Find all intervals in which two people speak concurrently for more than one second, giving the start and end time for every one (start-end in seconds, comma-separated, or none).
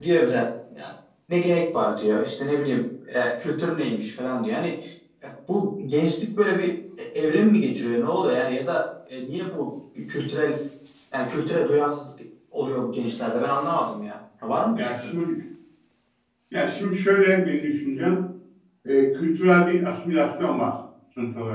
none